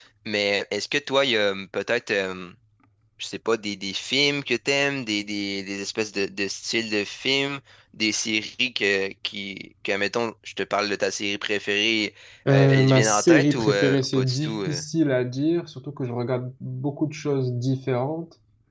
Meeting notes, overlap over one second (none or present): present